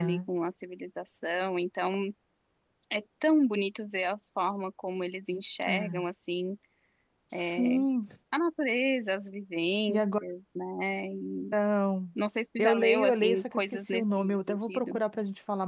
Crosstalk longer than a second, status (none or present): present